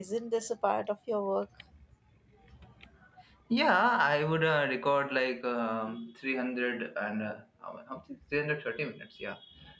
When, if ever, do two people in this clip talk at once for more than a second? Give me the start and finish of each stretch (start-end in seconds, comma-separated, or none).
none